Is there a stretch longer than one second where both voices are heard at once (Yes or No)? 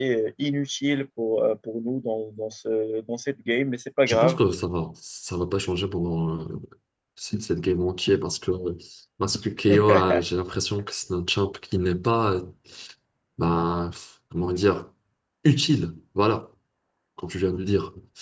No